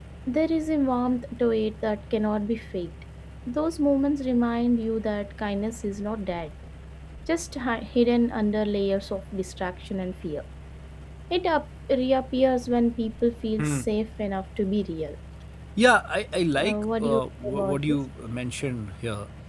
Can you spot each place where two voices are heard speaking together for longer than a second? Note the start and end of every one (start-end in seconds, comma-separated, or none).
16.6-18.0